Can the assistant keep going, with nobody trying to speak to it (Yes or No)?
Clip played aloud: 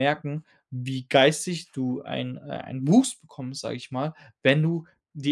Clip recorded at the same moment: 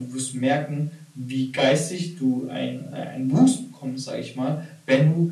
Yes